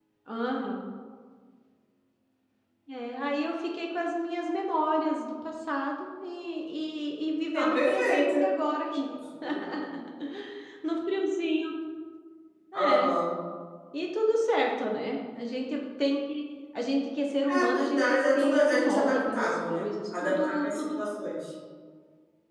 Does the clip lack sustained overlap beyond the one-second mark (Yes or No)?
No